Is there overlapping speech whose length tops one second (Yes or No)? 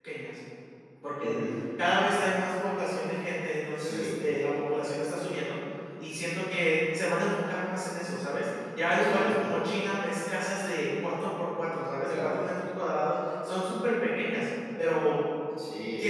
No